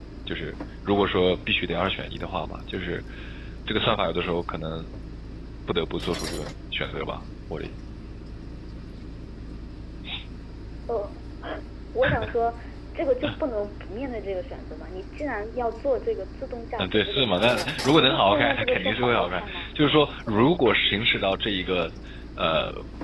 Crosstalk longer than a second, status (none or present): present